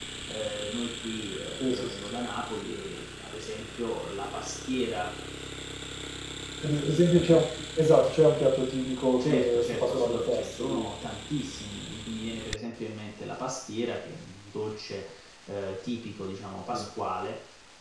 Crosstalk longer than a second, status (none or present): present